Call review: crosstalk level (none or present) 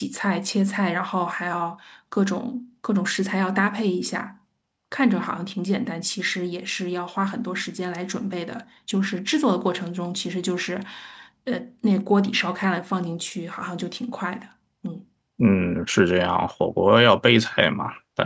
none